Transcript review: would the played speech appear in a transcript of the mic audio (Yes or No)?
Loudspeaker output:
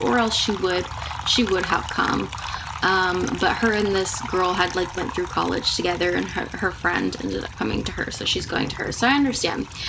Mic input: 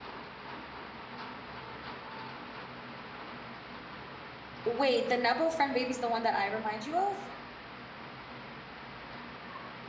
No